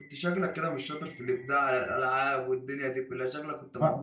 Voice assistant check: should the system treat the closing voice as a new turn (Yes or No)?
Yes